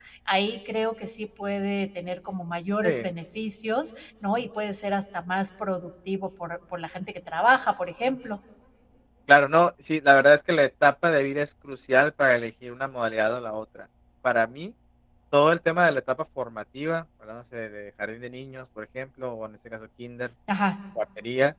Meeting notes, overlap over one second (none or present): none